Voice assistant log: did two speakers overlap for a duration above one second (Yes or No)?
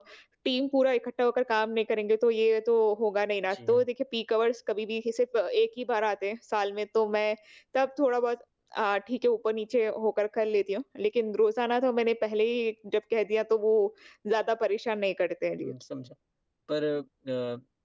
No